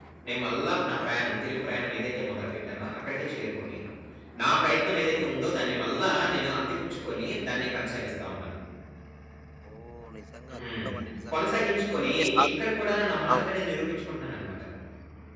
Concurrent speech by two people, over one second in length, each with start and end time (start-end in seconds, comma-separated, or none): none